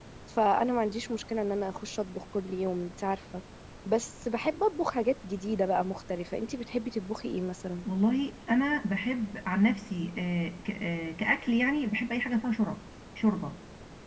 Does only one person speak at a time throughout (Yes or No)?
Yes